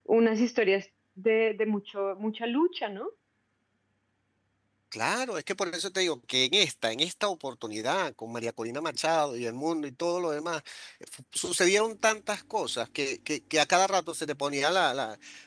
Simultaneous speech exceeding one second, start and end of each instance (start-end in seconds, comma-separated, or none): none